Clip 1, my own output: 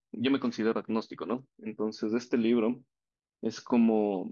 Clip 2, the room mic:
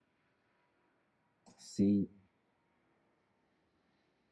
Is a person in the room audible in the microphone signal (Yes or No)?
Yes